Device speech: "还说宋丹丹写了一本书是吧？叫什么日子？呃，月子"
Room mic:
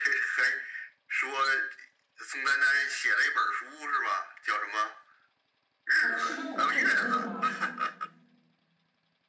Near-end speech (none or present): present